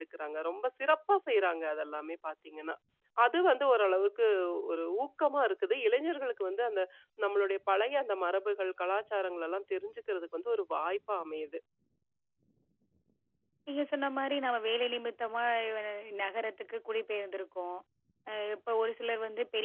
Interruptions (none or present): none